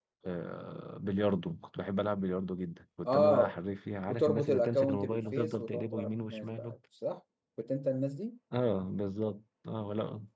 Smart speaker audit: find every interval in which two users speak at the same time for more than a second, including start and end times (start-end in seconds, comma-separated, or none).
4.1-6.8